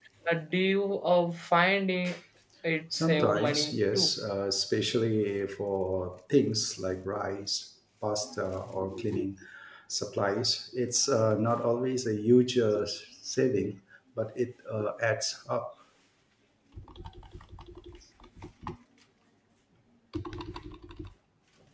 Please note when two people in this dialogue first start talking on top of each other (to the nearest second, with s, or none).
3 s